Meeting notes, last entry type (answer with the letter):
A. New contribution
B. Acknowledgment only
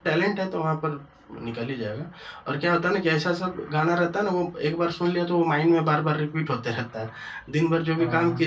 B